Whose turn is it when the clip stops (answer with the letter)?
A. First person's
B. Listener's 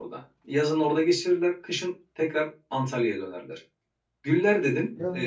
A